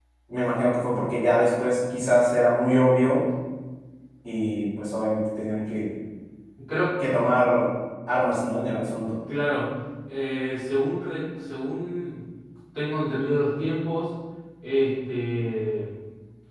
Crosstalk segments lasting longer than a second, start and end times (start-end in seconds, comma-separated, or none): none